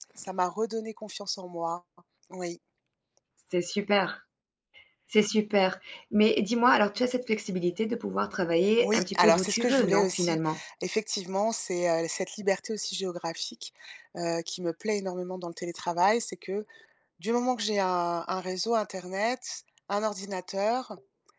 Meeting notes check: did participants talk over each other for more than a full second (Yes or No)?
Yes